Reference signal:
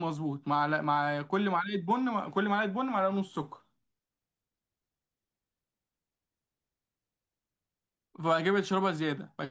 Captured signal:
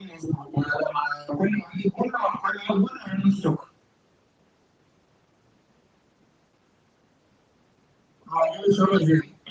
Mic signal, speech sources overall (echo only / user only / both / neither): echo only